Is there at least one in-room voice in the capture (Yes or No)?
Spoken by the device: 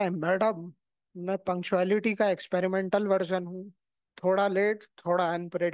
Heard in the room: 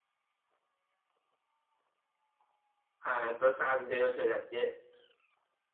Yes